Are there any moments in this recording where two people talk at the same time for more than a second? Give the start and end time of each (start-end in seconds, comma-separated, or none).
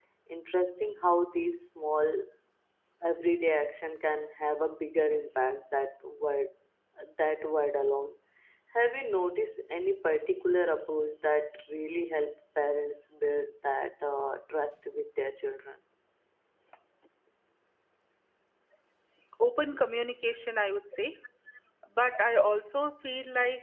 none